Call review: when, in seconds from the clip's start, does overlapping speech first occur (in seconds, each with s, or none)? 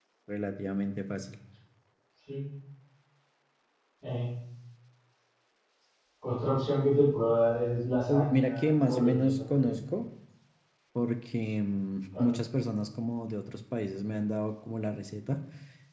8.1 s